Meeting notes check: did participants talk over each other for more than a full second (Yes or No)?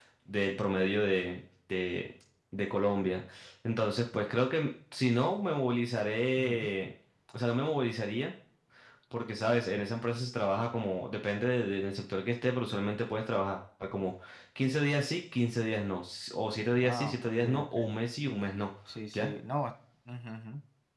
Yes